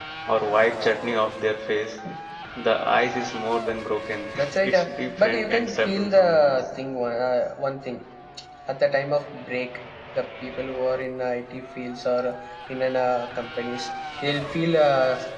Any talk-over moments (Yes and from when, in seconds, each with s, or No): Yes, from 4.3 s